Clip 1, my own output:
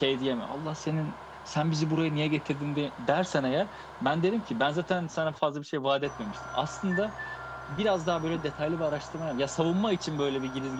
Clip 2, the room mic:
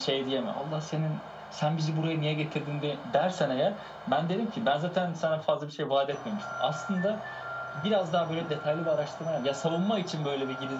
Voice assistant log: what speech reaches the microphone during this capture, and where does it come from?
echo only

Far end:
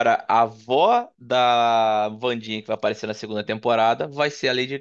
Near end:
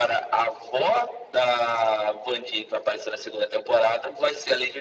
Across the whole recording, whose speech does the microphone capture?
echo only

